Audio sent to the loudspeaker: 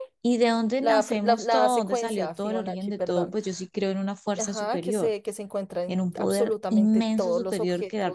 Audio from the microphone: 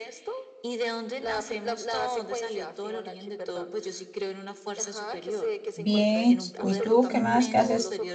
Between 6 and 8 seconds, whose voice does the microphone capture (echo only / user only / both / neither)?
both